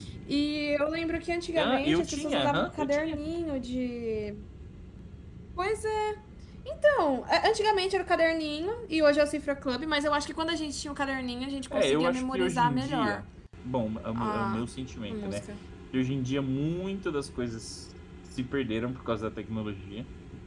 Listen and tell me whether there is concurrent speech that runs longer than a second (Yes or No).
Yes